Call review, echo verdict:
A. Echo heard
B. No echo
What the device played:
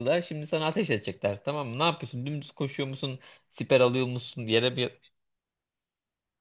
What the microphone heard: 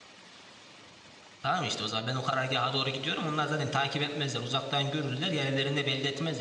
B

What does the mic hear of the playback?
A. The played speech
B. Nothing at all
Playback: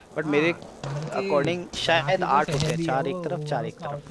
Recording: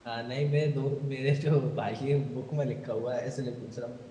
B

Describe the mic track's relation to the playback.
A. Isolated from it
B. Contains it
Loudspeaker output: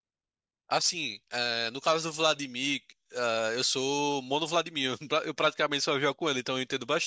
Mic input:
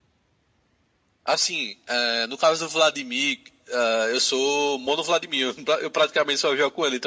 B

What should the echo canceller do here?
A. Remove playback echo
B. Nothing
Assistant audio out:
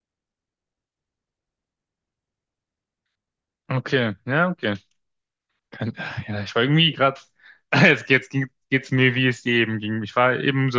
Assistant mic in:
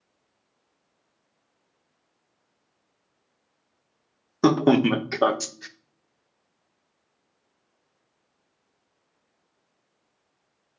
B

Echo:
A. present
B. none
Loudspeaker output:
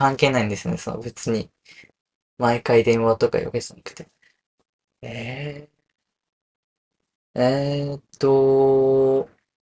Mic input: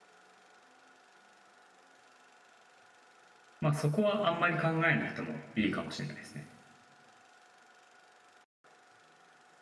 B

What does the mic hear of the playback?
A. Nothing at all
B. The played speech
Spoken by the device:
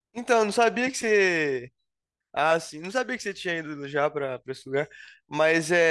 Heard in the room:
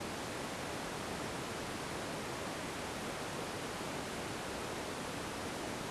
A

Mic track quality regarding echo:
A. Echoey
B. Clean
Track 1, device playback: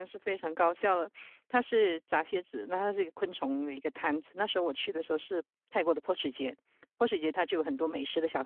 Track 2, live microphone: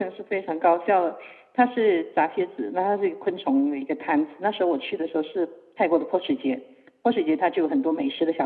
A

